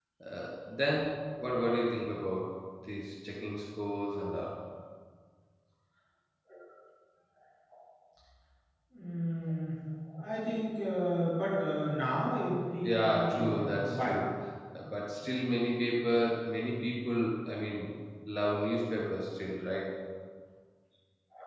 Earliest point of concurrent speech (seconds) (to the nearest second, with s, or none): 13 s